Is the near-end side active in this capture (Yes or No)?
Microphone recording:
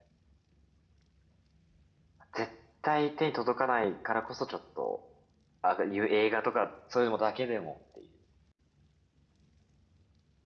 Yes